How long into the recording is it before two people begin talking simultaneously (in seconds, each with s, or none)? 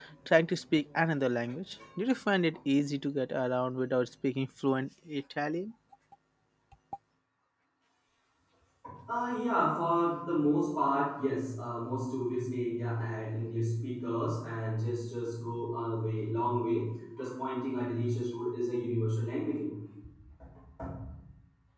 none